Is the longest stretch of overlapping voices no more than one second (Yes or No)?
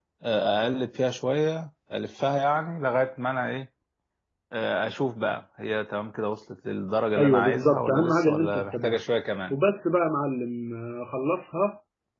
No